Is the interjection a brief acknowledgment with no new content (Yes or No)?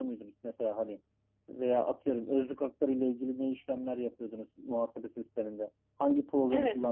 Yes